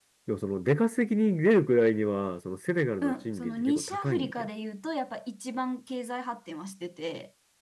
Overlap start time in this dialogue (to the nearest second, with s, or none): 3 s